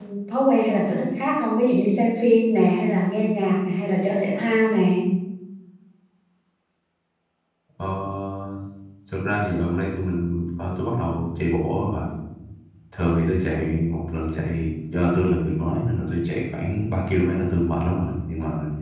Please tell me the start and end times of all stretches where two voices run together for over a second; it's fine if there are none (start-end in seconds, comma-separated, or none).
none